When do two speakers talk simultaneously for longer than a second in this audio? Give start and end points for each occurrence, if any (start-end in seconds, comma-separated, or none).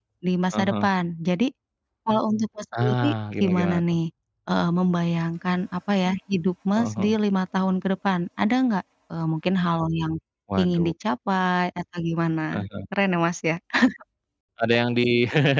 none